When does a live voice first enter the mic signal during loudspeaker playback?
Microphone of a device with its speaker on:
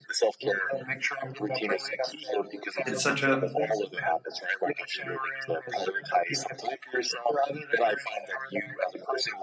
2.8 s

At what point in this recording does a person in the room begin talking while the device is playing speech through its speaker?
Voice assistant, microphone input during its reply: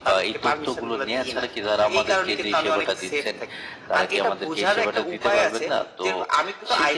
none

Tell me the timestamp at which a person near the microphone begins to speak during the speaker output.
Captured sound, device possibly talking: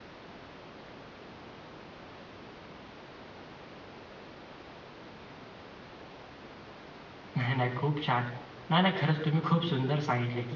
7.4 s

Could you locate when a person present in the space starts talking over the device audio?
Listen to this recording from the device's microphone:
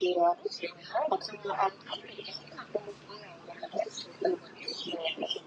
none

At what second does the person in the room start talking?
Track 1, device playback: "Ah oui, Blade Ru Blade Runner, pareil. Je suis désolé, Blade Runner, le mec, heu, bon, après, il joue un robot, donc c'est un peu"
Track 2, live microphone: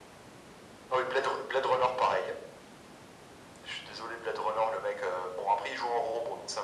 none

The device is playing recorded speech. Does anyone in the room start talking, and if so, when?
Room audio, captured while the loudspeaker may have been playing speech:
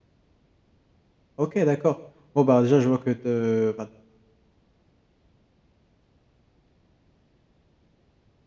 1.4 s

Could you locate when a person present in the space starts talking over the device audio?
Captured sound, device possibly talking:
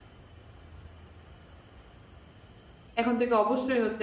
3.0 s

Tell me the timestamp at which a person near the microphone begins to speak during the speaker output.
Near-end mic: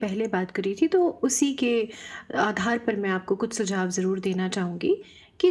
none

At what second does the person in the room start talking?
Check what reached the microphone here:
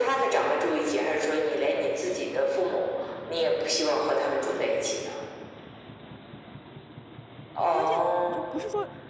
7.7 s

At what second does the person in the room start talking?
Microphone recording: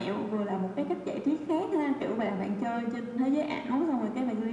none

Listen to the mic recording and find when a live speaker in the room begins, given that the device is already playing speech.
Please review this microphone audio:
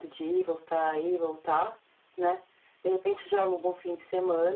none

